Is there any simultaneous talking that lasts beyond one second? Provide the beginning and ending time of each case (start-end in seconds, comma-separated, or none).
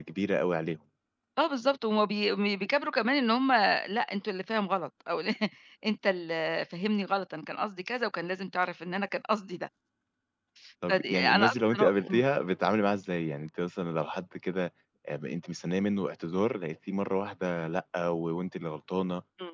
10.9-12.2